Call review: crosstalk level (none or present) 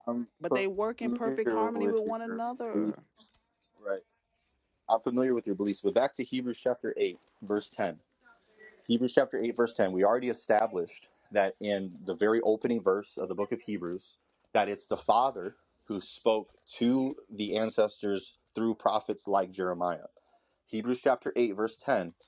present